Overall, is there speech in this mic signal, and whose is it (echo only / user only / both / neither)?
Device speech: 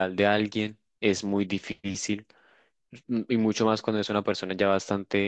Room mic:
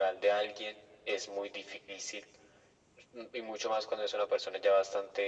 echo only